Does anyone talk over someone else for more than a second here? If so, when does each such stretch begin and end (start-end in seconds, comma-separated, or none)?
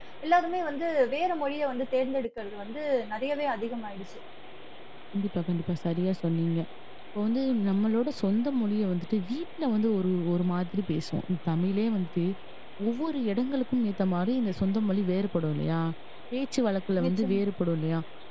none